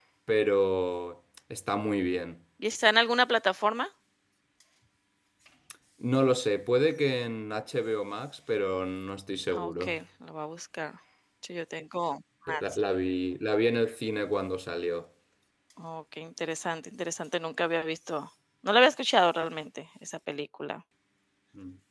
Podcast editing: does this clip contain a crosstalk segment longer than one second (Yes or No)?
No